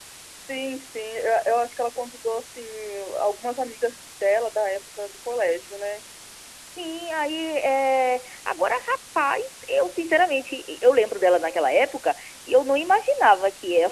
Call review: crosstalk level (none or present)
none